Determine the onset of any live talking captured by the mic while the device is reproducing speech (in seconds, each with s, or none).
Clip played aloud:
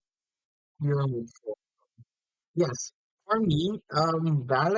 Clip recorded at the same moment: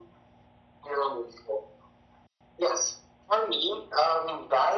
none